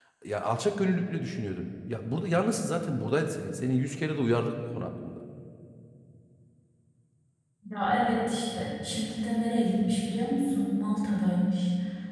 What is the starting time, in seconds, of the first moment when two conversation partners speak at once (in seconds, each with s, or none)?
none